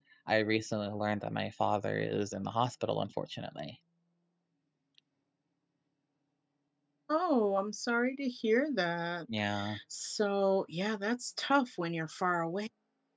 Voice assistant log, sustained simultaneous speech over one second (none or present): none